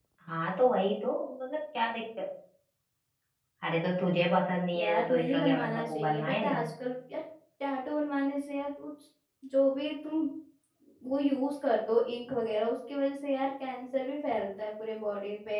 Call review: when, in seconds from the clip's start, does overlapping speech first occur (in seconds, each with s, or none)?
4.7 s